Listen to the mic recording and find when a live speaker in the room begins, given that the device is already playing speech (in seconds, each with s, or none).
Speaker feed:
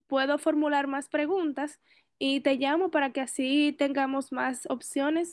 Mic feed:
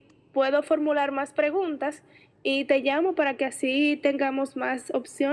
none